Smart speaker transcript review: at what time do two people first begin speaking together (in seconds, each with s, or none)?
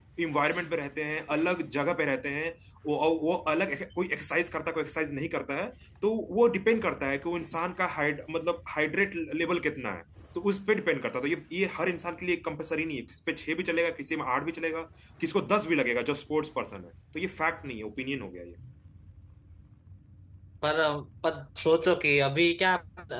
none